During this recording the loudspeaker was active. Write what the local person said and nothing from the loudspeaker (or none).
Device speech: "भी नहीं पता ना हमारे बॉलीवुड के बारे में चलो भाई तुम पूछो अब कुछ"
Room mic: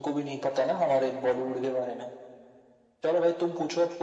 none